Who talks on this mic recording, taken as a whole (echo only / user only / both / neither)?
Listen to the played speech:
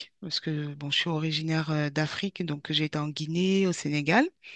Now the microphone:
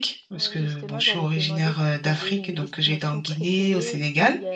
both